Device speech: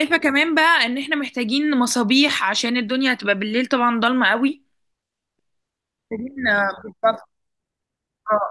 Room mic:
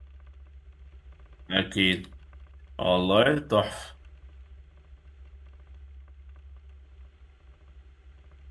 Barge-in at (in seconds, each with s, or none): 1.5 s